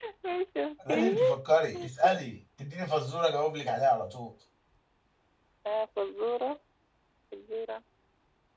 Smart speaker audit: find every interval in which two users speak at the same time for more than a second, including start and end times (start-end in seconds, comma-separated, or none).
none